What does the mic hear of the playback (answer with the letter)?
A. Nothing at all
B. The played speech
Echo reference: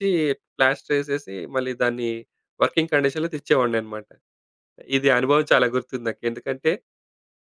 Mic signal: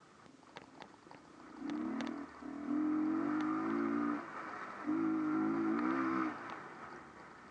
A